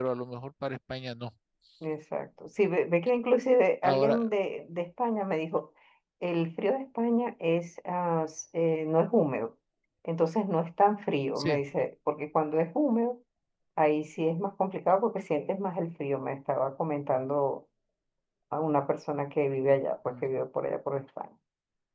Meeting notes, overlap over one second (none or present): none